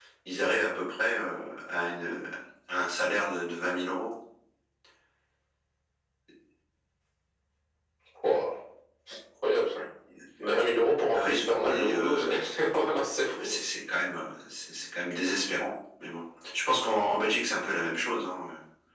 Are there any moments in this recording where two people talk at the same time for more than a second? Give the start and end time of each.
11.1-12.4

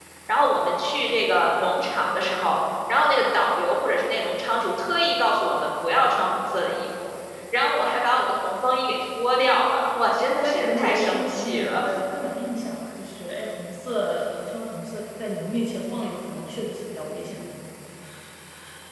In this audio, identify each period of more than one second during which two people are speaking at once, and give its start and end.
10.4-11.8

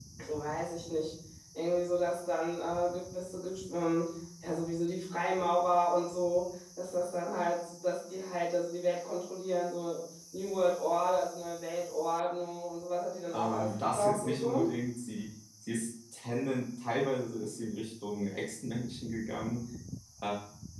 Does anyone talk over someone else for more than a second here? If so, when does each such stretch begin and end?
13.3-14.7

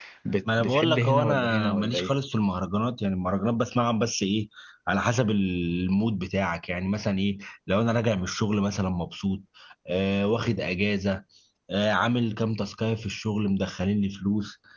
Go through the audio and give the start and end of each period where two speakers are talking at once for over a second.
0.6-2.1

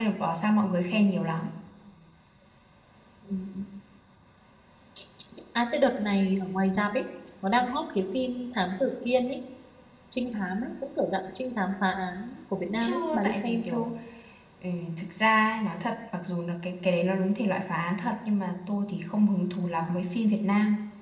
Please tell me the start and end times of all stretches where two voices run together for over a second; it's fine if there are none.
12.6-13.9

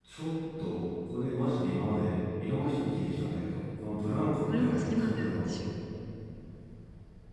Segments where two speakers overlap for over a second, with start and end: 4.0-5.5

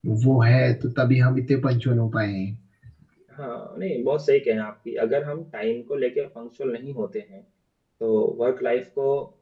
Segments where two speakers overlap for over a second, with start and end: none

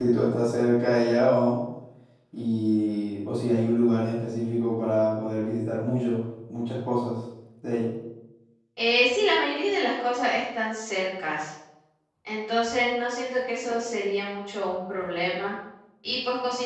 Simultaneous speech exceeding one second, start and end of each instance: none

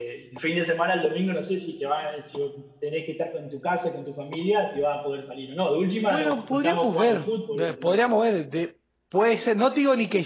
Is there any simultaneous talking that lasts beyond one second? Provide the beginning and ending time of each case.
6.0-8.0

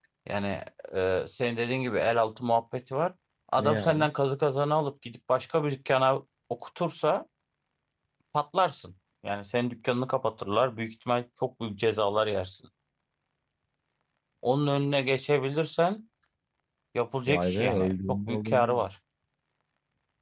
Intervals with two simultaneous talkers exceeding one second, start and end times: 17.3-18.9

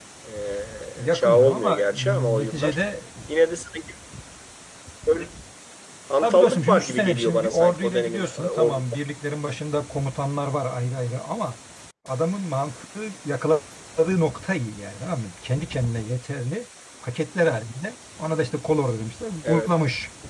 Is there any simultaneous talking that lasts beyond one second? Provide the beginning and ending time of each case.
1.0-2.8, 6.2-8.8

